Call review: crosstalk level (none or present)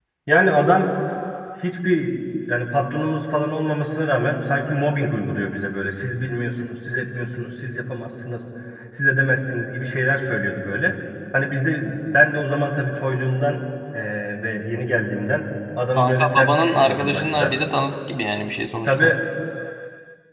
present